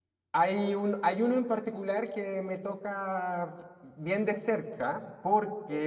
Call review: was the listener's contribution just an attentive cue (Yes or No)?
Yes